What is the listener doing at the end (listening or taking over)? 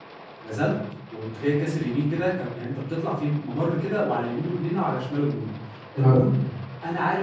listening